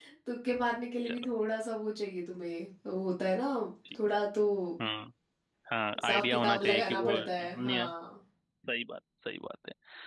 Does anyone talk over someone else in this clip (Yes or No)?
Yes